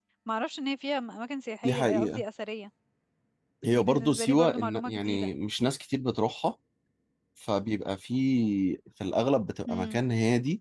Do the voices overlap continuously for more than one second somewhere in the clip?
Yes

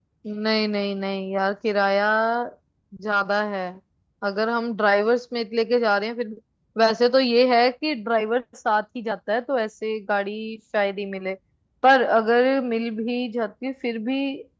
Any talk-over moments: No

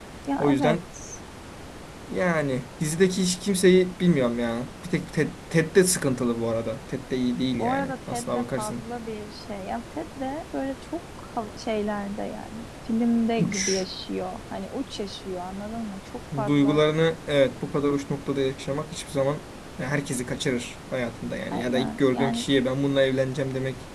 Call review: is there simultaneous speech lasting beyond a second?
Yes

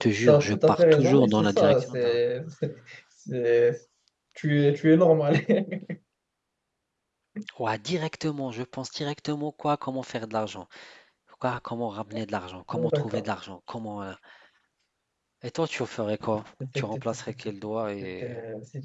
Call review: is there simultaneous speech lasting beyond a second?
Yes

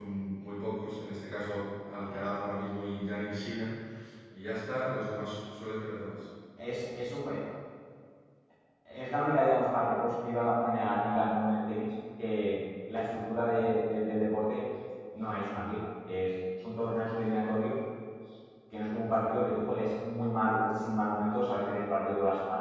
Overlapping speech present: No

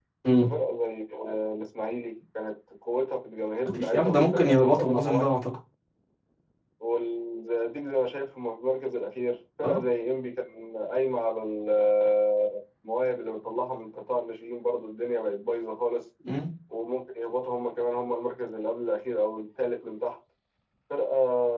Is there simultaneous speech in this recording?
Yes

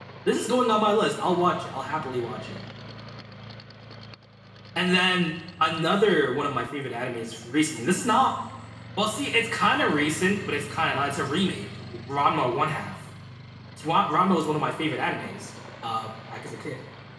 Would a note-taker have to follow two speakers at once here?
No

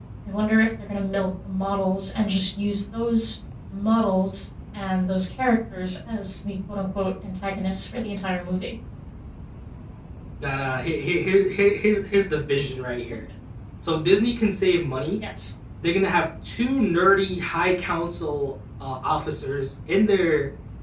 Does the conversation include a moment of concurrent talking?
No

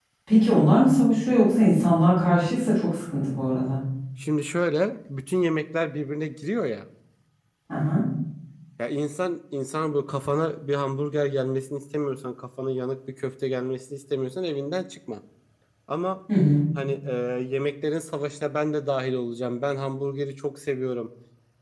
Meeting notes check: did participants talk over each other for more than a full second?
No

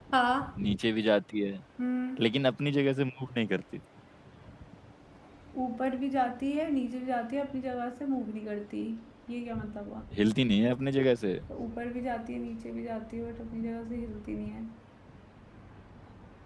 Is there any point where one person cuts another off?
No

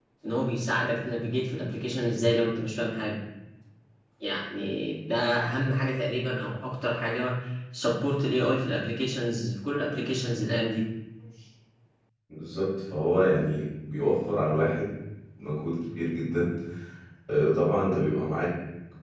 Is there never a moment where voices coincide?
Yes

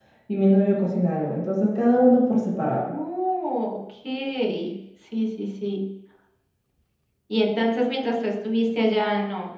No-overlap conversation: Yes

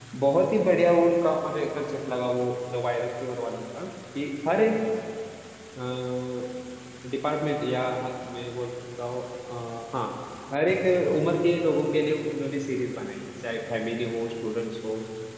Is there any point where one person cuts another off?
No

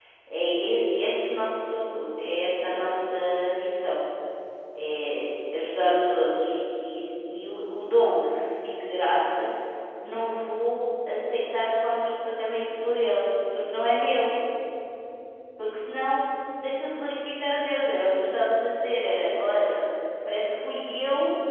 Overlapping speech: No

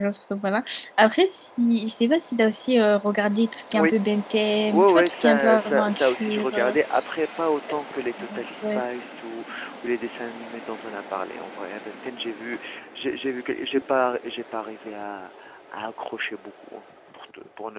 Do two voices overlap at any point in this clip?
Yes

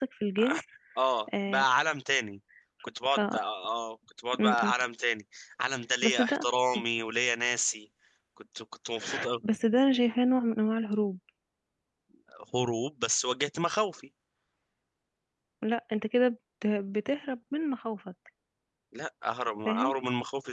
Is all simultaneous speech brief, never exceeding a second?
Yes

